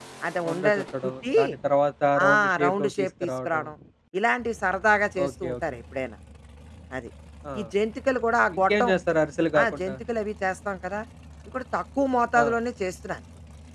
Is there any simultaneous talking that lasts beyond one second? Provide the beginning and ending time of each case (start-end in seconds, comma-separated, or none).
2.3-3.6